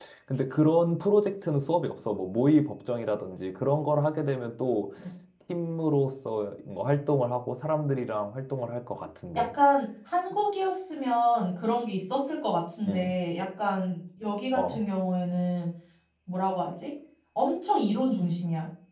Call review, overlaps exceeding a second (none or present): none